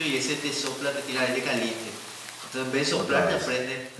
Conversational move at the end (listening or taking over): listening